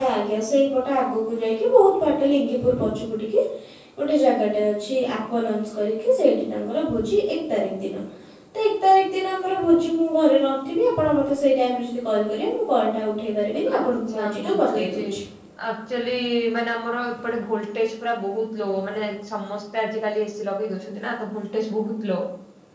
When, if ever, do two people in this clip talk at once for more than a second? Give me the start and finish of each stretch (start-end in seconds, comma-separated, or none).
13.8-15.0